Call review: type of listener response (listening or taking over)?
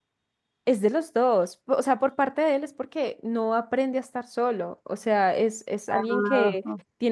listening